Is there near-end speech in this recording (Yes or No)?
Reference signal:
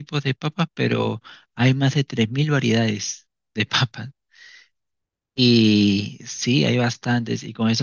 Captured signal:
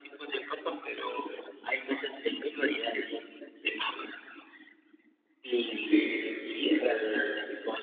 Yes